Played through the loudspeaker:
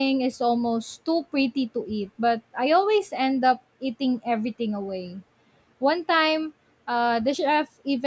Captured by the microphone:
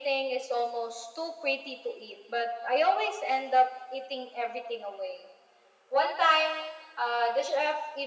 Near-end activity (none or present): none